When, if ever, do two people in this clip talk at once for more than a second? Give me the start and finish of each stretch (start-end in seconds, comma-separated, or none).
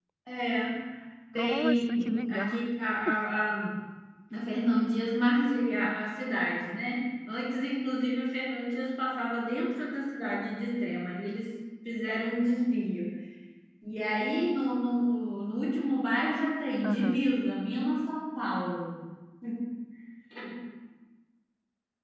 1.4-2.7